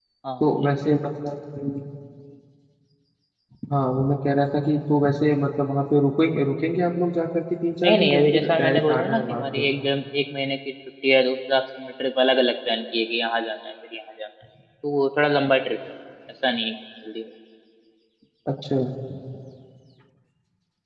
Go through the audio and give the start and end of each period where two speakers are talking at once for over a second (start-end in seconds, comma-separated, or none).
7.8-9.7